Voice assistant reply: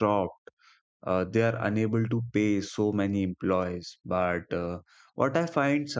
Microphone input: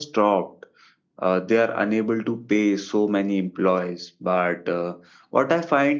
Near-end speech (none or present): none